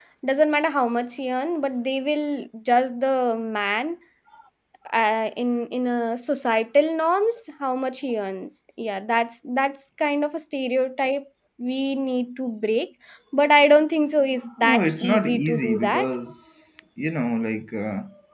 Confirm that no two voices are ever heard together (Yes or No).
No